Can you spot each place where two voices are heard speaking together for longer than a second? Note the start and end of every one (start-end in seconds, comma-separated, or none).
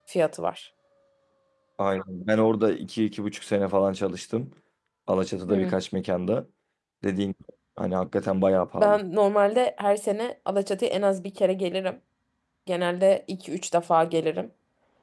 none